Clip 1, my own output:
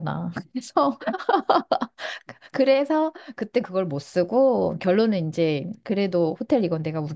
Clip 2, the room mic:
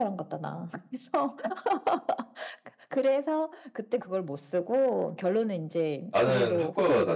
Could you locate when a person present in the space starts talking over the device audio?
6.1 s

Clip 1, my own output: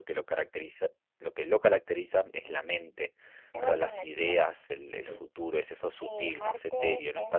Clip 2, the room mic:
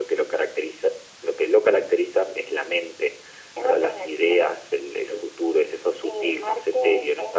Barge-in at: none

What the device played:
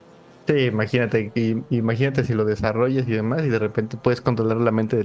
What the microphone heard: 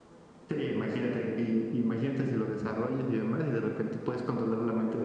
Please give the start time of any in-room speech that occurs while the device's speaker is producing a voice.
none

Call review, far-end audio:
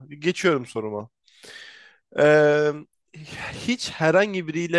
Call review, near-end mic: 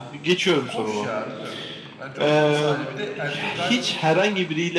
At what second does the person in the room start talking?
0.6 s

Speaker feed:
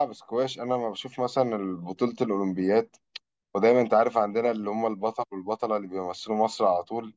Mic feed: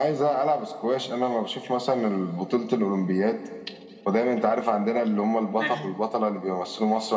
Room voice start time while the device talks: 5.6 s

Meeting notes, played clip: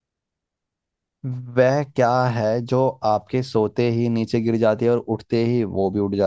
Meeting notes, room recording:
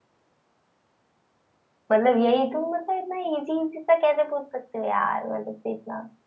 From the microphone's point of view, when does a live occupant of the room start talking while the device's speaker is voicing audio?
1.9 s

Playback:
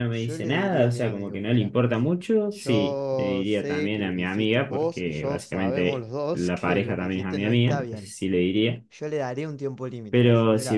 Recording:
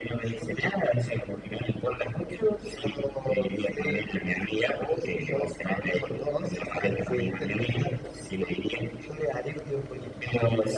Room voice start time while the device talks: 7.0 s

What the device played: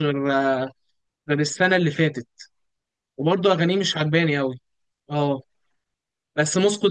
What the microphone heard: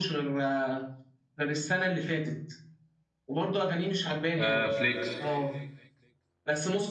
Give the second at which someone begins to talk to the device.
4.4 s

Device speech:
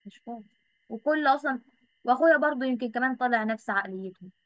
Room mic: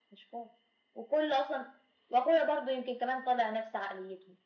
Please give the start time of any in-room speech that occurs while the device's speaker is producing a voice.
none

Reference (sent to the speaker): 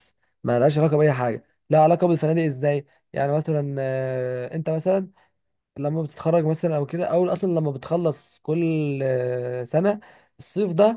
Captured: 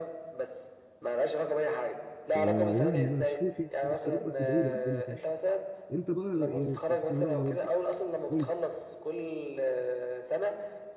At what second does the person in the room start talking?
2.3 s

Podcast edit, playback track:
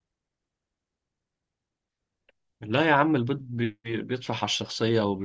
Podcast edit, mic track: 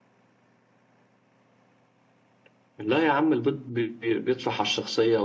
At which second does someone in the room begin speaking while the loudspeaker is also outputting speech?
none

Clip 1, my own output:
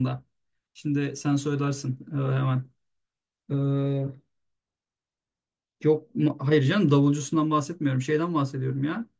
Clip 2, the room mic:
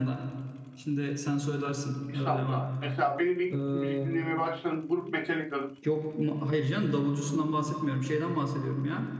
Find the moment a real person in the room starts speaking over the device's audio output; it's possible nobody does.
2.1 s

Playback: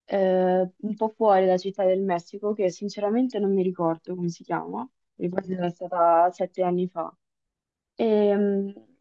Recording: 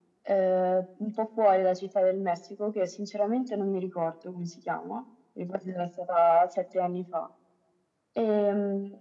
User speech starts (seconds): none

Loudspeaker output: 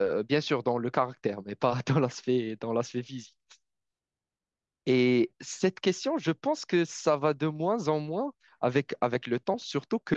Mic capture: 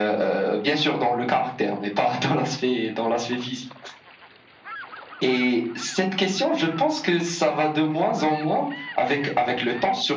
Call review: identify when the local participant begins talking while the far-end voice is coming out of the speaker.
none

